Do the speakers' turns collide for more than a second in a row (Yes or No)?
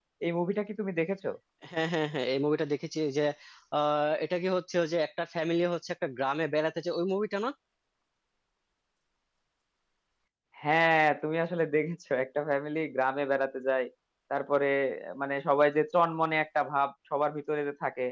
No